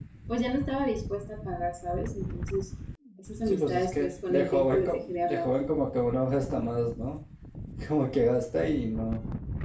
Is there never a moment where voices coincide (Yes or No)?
No